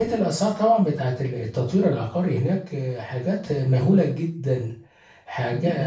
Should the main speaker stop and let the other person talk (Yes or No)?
Yes